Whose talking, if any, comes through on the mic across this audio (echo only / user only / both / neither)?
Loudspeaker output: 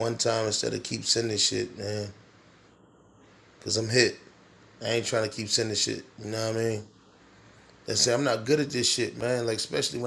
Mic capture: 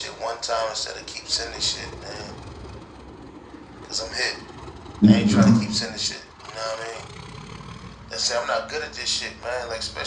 both